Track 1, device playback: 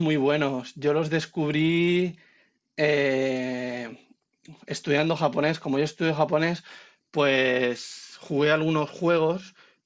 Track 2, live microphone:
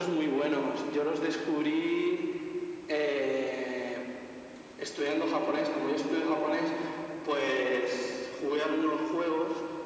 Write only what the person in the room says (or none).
none